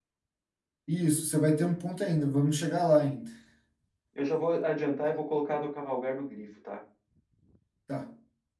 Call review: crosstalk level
none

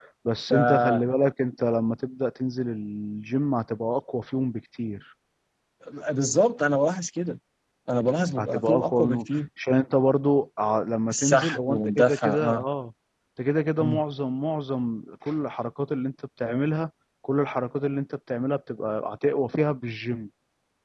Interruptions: present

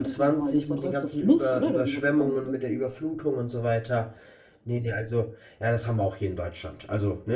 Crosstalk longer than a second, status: present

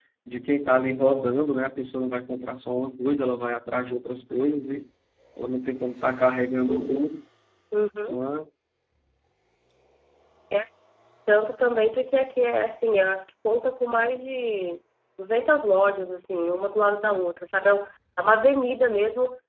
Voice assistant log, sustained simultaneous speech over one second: none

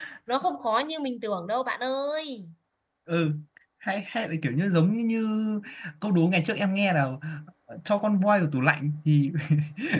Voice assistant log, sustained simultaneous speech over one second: none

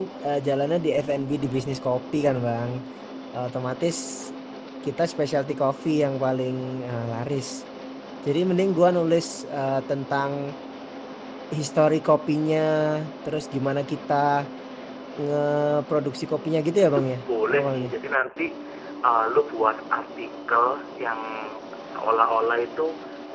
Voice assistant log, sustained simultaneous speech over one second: none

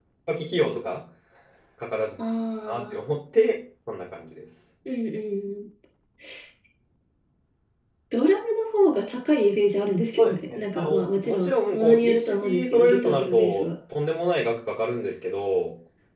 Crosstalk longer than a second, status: present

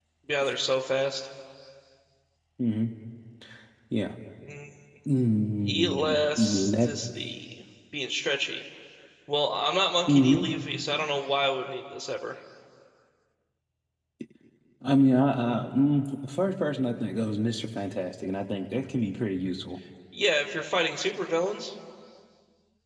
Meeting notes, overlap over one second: present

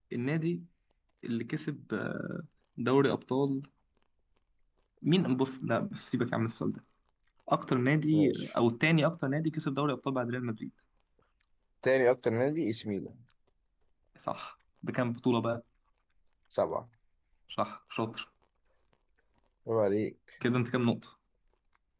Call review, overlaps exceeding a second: none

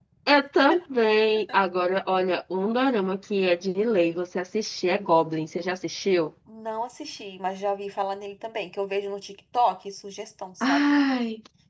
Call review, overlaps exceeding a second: none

